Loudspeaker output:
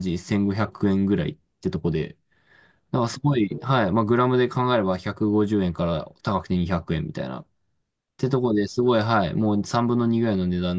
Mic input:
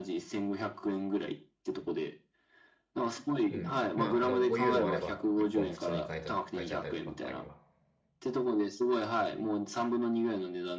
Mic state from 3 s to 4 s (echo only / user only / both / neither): both